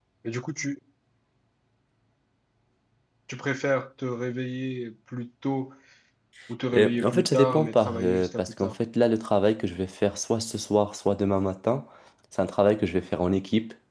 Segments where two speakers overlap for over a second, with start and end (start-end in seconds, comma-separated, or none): 6.8-8.7